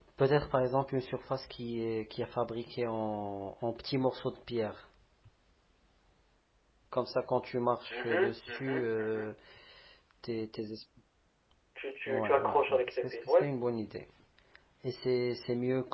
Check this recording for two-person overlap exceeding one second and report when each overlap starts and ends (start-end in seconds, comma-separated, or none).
7.9-9.3, 12.1-13.4